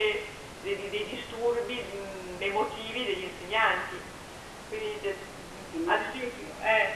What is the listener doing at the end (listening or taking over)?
listening